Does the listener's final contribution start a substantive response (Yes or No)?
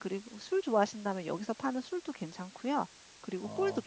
Yes